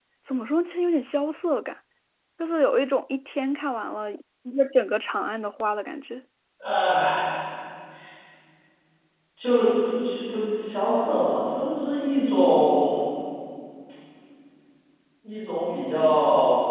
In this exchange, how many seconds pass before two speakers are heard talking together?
none

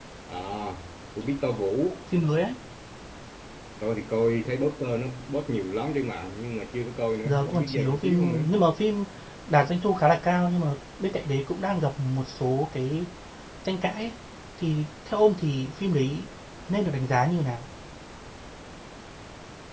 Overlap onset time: 7 s

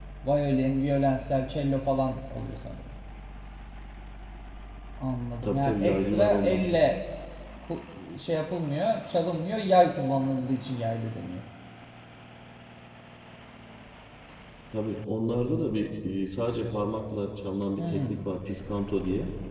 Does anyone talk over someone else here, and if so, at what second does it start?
5 s

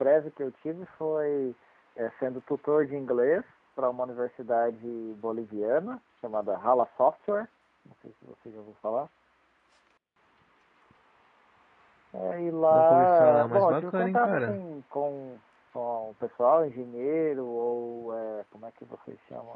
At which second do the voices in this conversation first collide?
13 s

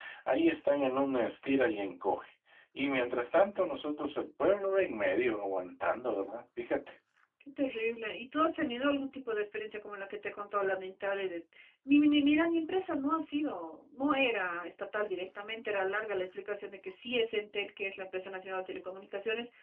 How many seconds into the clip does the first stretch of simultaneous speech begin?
none

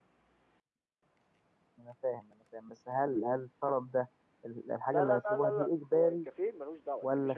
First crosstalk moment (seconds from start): 5 s

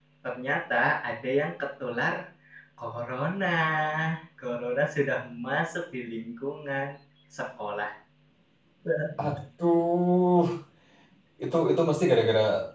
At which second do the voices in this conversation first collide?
none

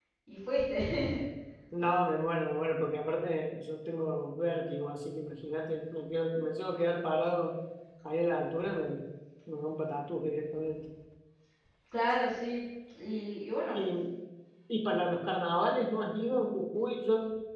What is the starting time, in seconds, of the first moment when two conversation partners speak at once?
none

